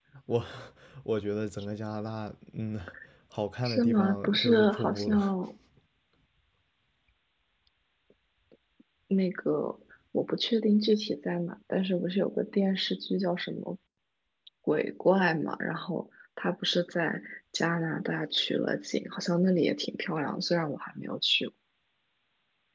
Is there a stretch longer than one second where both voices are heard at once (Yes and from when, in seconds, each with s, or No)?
Yes, from 3.6 s